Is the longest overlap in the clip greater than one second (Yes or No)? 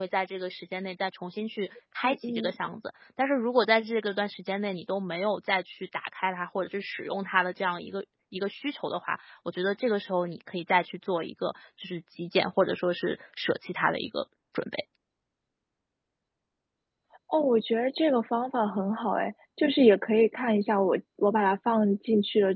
No